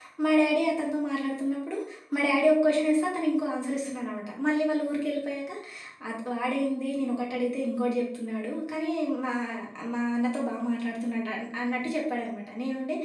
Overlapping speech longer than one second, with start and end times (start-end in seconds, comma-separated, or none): none